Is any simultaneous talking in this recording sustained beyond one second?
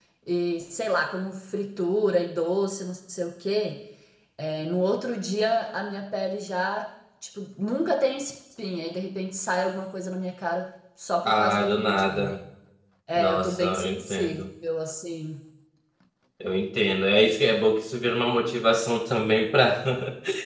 Yes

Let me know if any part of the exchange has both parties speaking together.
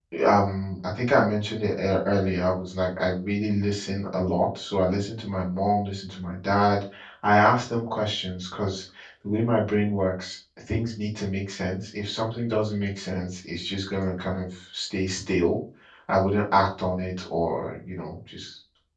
No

